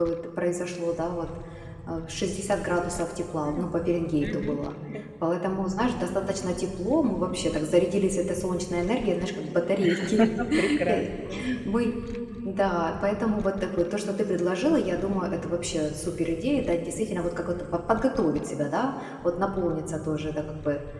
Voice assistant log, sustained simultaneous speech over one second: none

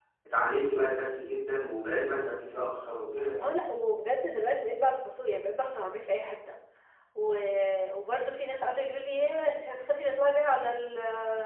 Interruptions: none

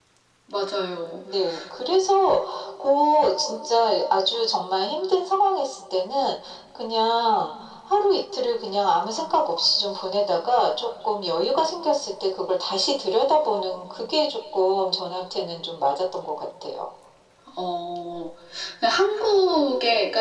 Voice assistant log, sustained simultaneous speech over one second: none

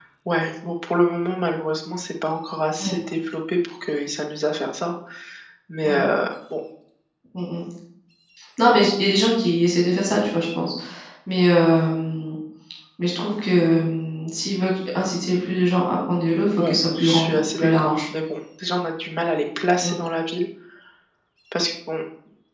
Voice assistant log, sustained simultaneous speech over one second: present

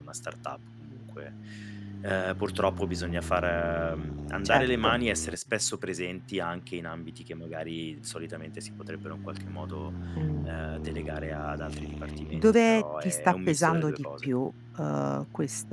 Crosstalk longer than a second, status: present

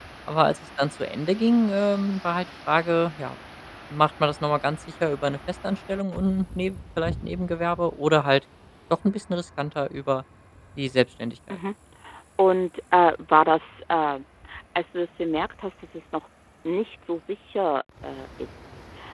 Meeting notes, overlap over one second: none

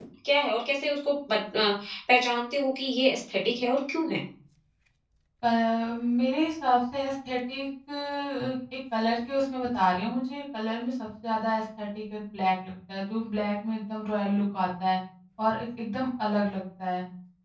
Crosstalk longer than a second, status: none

